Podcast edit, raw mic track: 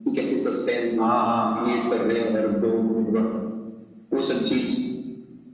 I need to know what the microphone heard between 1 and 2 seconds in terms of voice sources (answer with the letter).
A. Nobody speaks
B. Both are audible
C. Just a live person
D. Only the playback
B